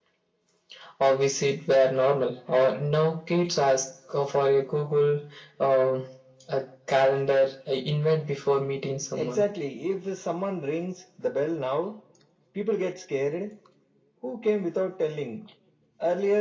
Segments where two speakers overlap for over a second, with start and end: none

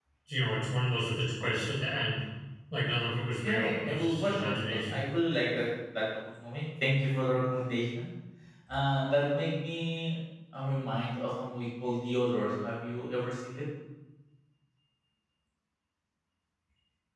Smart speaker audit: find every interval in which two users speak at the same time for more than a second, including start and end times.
3.4-5.0

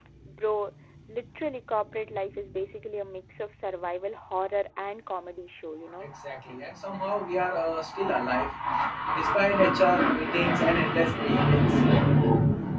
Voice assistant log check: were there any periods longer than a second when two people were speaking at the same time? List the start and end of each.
none

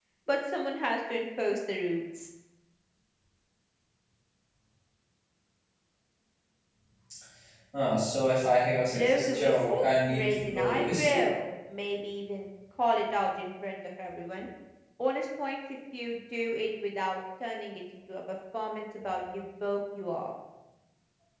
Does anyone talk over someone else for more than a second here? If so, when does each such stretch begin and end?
8.8-11.3

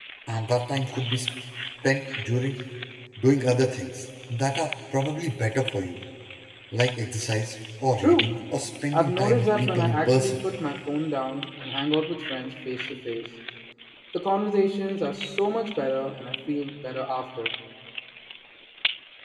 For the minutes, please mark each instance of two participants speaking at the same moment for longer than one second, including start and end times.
8.9-10.4

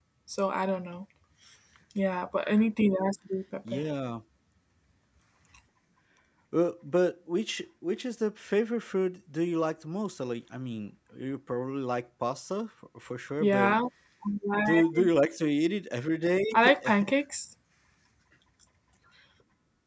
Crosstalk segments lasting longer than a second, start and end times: none

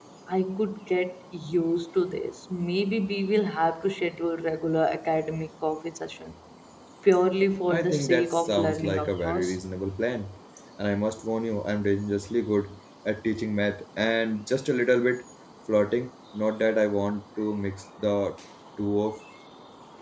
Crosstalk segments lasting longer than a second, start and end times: 7.7-9.6

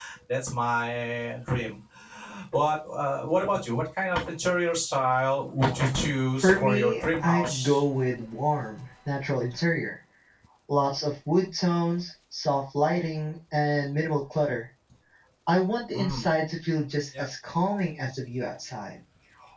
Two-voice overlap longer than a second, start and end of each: 6.4-7.8

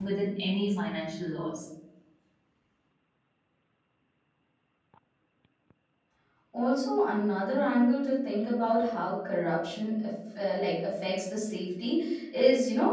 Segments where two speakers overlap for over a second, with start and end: none

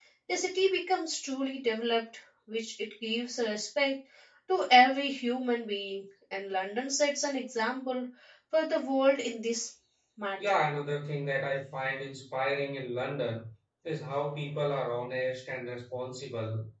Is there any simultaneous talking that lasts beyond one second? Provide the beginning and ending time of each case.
none

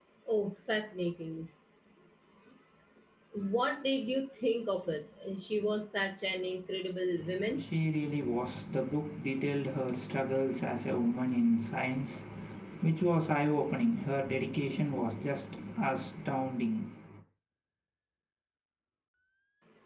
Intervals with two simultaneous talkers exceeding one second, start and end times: none

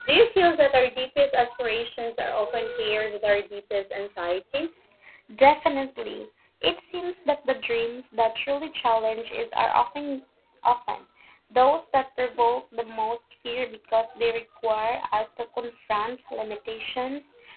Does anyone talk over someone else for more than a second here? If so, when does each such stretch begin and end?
none

